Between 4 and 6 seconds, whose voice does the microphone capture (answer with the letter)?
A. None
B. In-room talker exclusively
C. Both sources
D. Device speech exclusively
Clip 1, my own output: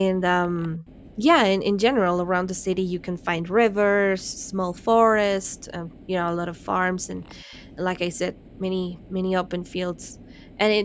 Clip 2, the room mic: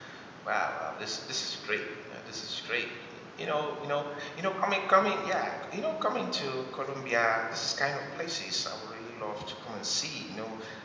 B